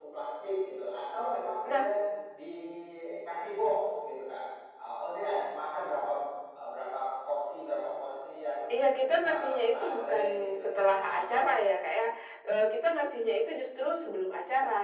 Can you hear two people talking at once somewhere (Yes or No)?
Yes